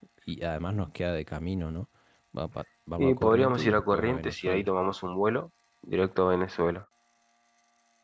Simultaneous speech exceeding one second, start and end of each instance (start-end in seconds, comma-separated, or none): 3.0-4.7